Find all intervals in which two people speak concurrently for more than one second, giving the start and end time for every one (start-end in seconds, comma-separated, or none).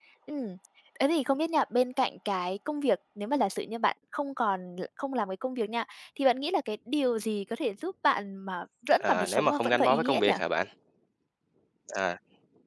9.0-10.3